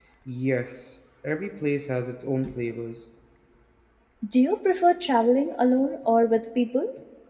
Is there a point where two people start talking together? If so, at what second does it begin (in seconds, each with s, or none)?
none